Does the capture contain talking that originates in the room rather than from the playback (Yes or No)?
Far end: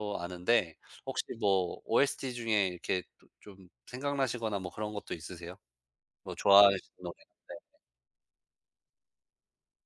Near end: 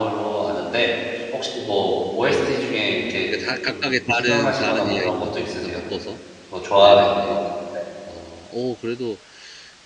Yes